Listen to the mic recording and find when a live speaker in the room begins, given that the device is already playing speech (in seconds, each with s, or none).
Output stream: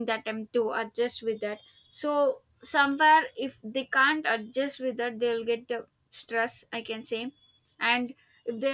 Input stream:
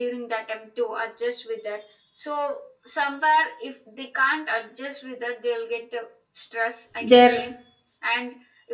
7.0 s